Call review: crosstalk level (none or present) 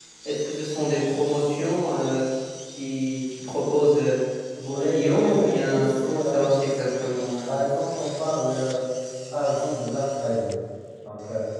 present